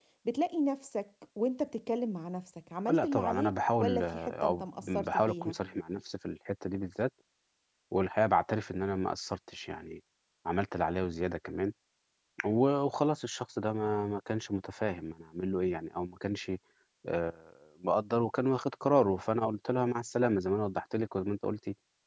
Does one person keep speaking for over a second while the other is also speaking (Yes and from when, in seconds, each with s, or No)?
Yes, from 2.9 s